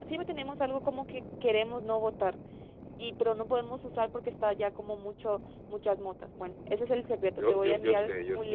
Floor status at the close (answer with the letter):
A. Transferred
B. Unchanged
A